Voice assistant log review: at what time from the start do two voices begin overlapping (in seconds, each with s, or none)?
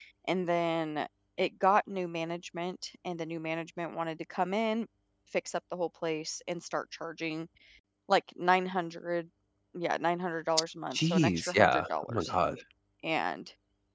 10.9 s